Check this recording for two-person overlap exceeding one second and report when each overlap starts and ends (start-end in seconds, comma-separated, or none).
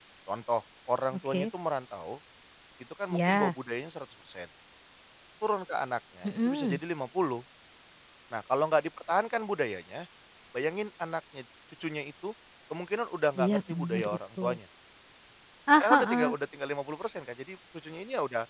13.4-14.6